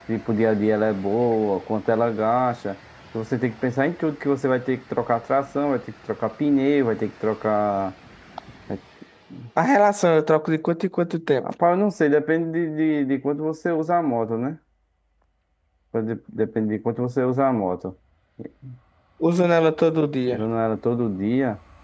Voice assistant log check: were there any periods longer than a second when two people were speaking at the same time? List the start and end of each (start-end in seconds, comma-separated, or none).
none